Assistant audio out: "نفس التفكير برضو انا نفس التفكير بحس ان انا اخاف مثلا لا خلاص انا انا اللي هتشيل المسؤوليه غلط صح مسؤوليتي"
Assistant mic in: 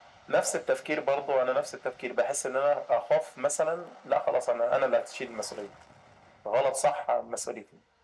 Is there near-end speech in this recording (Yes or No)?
No